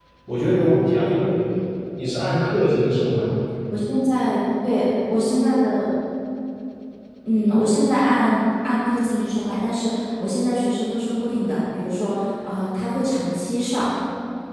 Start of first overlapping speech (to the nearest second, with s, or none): none